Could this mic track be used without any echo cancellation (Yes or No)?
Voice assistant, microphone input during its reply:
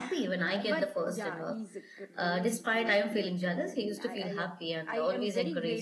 No